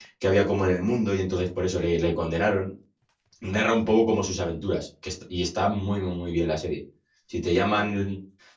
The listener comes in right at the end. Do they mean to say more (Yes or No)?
No